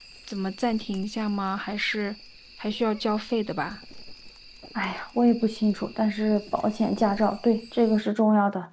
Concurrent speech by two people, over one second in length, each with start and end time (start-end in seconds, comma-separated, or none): none